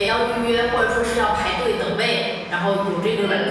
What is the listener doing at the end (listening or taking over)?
taking over